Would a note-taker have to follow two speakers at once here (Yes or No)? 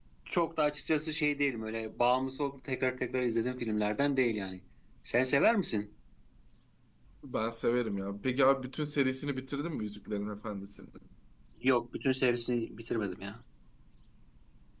No